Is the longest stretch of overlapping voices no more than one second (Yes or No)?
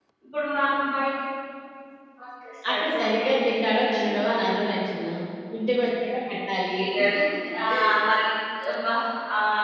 No